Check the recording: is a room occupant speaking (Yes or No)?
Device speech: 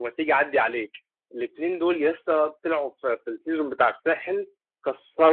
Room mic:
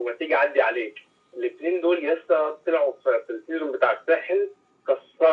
No